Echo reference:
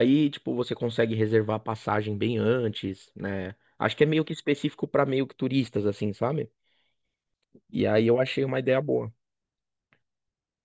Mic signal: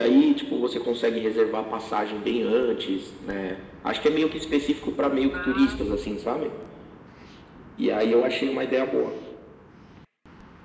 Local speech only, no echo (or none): Ah,